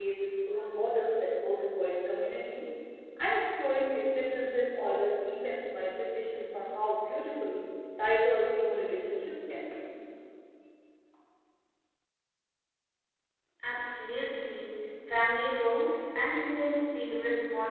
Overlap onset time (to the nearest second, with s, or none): none